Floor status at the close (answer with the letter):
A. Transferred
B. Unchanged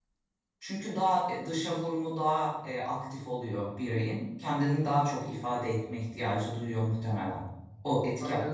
A